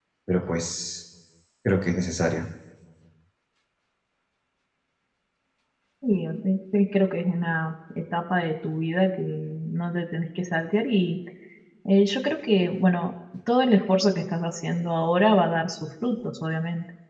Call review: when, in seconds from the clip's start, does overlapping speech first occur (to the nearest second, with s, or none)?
none